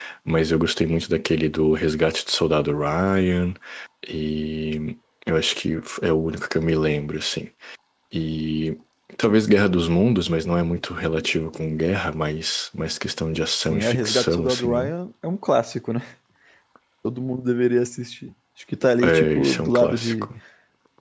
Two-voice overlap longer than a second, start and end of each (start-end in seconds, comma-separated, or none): 13.7-14.9, 19.0-20.3